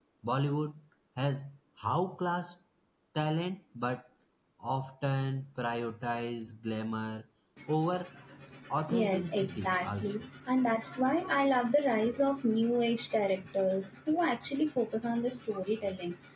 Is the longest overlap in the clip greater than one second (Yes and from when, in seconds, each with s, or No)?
Yes, from 8.9 s